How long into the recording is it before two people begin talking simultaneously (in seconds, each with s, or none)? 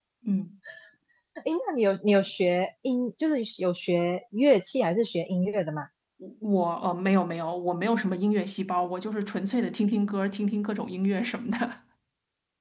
none